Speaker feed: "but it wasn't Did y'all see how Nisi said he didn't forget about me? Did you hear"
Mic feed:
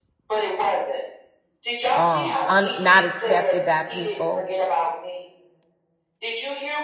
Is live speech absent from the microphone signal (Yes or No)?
No